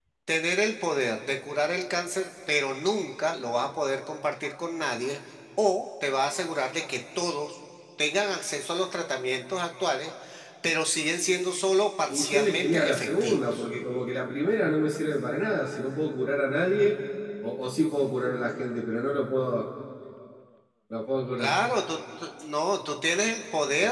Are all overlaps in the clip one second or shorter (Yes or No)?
No